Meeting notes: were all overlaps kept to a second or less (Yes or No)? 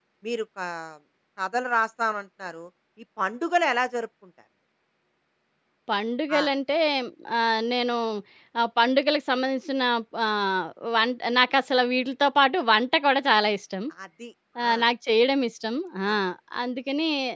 Yes